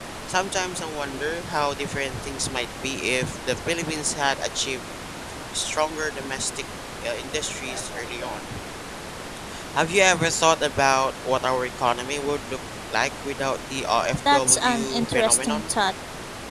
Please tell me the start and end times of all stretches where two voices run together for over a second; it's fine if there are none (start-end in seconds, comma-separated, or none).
14.3-15.7